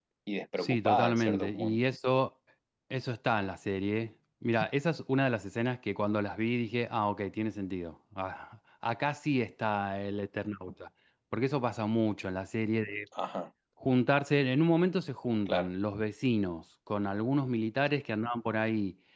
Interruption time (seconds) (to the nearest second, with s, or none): 1 s